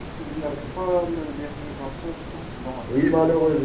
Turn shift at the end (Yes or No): Yes